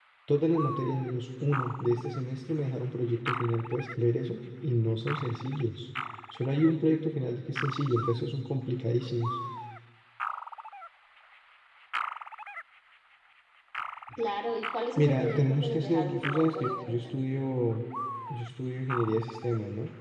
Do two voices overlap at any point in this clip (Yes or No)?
Yes